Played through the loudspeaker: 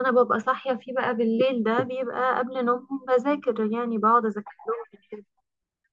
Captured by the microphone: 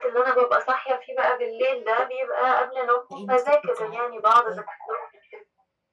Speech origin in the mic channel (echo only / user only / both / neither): both